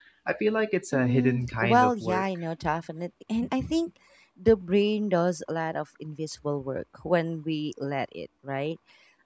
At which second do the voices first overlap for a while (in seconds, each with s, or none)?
0.9 s